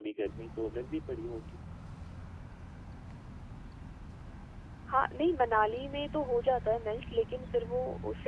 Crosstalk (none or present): none